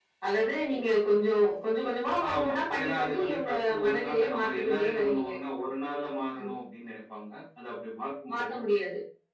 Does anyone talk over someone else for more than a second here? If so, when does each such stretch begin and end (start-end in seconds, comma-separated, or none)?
2.3-5.3